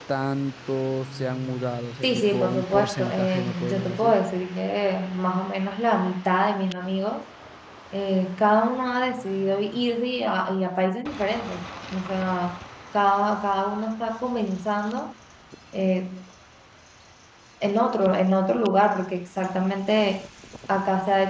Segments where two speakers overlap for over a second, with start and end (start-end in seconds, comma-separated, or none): 2.0-4.2